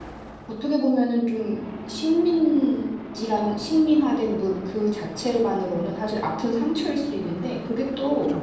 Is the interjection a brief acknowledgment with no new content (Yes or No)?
Yes